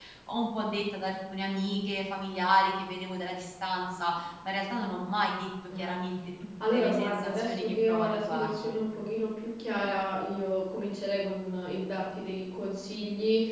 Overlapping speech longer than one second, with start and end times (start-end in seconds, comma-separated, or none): 6.7-8.7